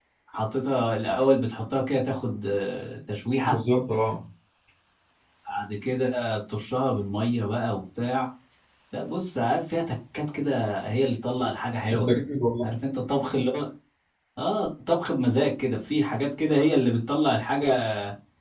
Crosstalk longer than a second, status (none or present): none